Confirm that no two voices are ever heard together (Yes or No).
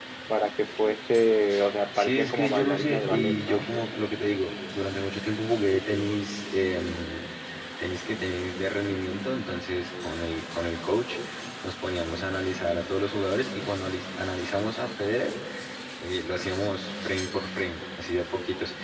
No